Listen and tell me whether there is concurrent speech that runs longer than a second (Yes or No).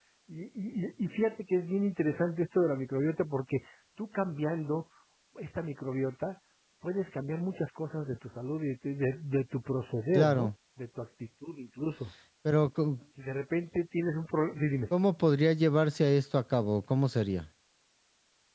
No